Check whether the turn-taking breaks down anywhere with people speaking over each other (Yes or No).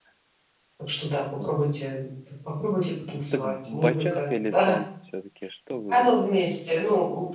Yes